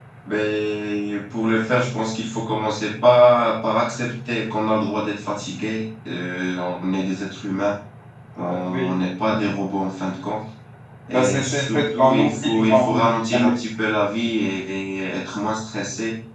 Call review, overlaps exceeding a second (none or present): present